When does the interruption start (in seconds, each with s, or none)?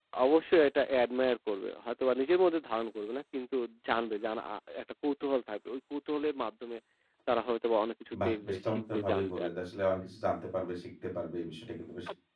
8.1 s